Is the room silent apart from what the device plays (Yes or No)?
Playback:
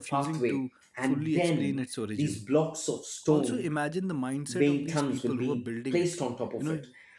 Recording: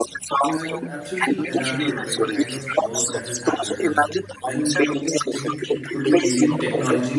No